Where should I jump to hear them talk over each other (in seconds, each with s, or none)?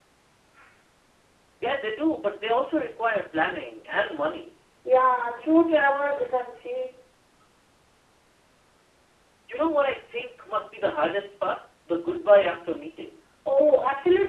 none